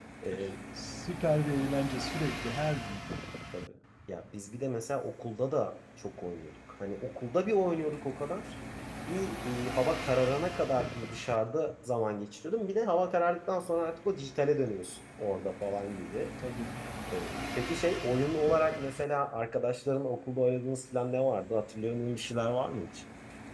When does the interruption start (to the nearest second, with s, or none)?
none